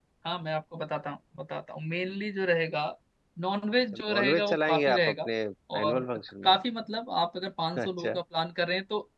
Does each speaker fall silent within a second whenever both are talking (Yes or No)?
No